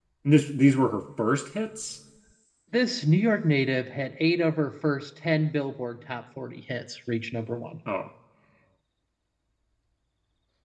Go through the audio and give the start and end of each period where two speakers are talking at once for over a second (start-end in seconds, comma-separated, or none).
none